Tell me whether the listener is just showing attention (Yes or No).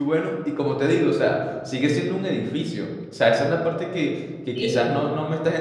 Yes